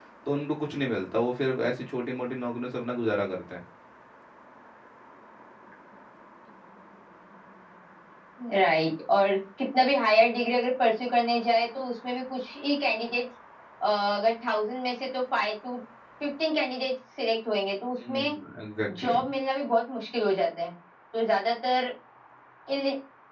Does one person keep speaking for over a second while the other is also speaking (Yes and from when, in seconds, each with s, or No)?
No